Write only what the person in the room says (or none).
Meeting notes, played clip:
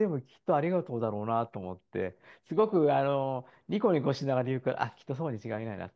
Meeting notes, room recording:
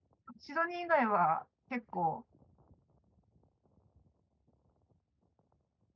うシドニー以外は結構、